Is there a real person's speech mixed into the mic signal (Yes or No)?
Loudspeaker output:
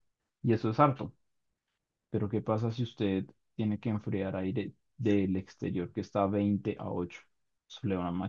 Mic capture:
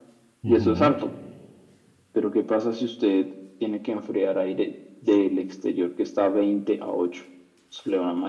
Yes